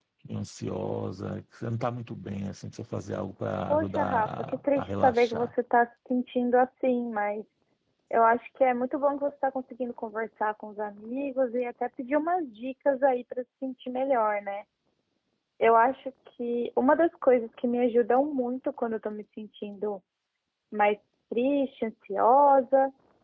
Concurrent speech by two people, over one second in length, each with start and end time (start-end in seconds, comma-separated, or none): 3.7-5.5